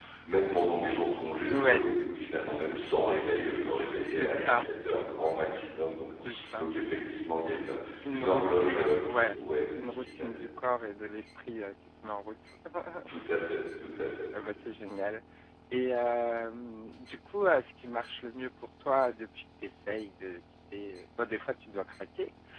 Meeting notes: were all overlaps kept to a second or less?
No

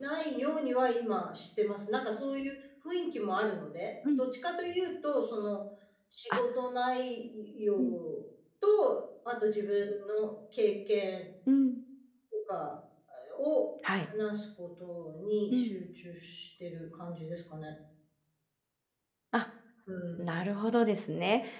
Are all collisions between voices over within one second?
Yes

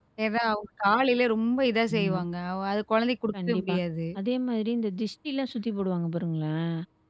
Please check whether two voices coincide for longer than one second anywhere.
No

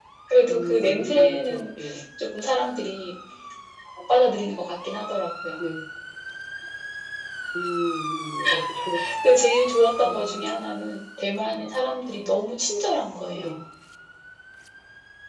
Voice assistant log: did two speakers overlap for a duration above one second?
Yes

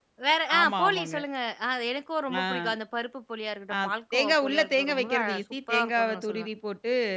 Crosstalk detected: Yes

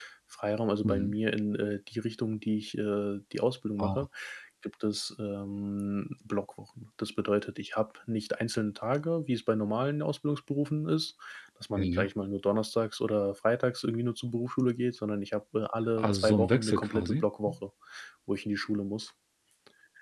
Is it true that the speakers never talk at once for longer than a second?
No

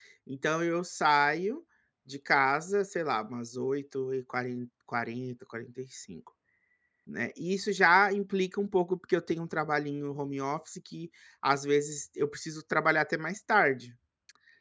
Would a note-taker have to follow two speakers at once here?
No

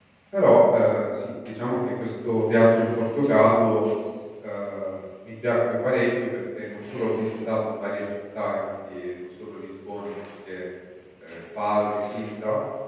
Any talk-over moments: No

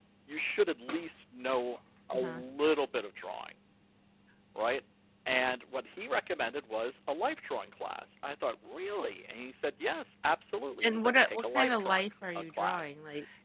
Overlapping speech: Yes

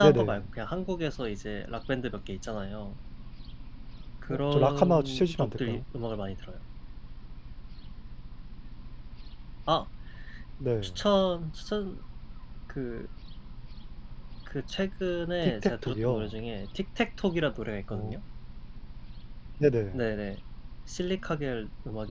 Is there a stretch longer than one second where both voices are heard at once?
Yes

